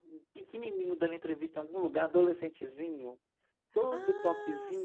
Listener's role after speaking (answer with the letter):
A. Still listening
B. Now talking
B